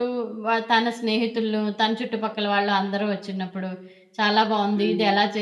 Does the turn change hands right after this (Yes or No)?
No